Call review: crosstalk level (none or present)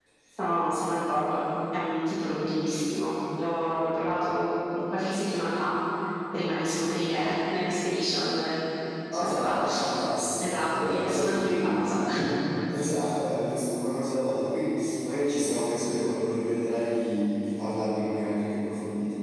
present